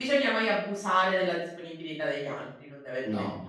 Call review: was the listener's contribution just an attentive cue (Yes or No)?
No